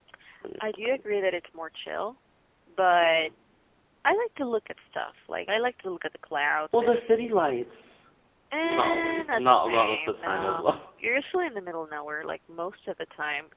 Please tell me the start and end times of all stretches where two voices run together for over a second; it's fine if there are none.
8.6-10.7

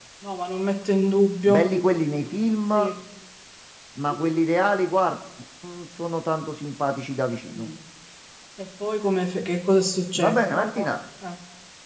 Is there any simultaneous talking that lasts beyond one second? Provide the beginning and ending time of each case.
none

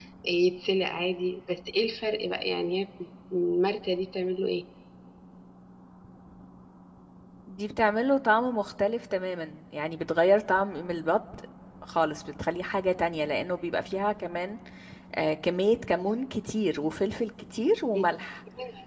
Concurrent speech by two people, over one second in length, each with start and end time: none

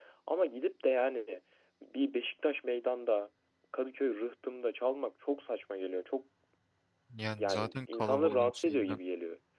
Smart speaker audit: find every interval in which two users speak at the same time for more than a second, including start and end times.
7.3-9.0

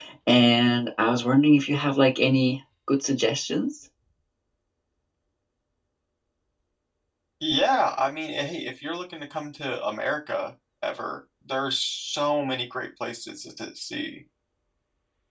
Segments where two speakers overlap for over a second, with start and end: none

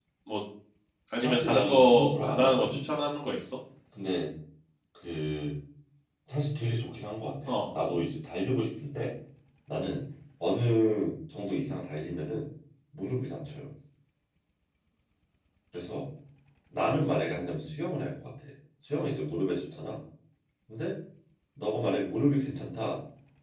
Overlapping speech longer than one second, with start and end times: 1.2-2.6

